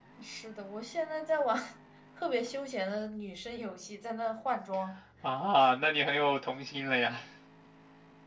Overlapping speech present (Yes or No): No